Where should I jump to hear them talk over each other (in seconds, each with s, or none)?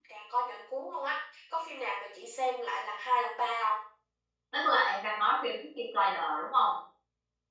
none